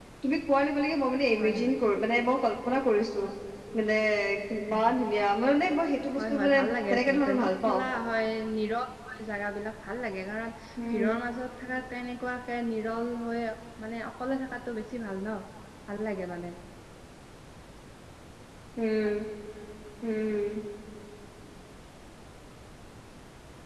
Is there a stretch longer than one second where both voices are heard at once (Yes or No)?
Yes